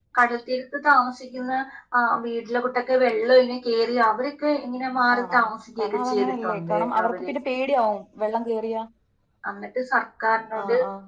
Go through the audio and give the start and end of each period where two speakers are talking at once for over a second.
5.8-7.3

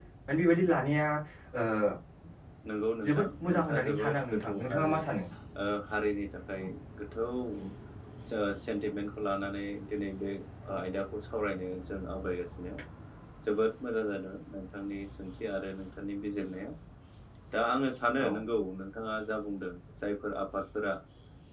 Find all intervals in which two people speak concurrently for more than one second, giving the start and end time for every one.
3.1-4.9

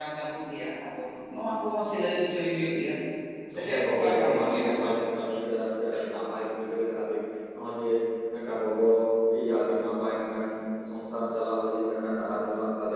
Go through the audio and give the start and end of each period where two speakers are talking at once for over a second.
3.6-4.9

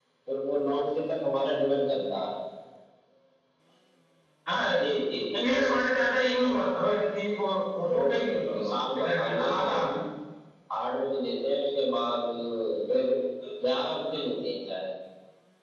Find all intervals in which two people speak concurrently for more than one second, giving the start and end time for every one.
7.9-9.8

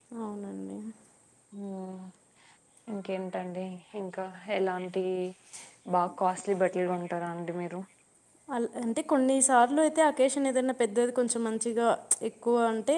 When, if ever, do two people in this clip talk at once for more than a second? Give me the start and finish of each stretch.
none

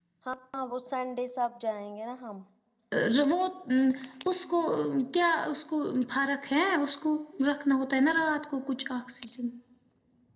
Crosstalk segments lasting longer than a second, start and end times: none

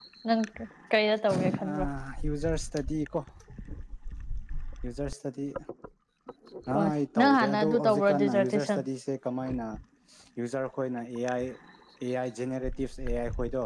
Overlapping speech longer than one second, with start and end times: 6.7-8.8

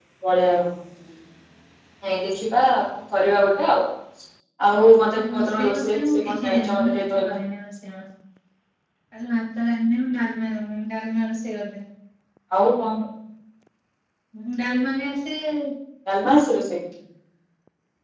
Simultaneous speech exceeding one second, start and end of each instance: 5.3-7.3

